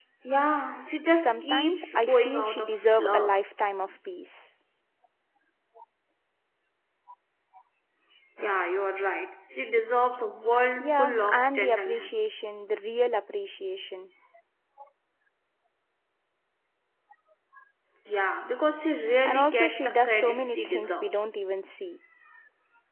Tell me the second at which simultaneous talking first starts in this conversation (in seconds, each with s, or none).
1.2 s